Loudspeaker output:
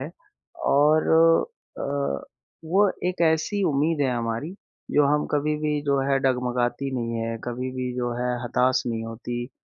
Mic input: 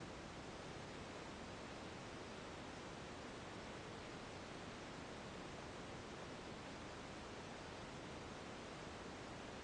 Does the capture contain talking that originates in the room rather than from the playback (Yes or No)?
No